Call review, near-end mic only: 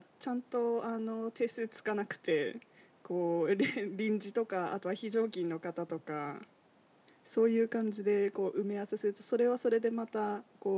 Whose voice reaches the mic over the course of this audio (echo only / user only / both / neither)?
echo only